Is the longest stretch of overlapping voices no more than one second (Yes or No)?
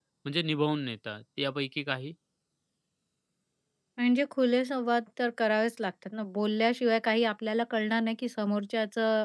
Yes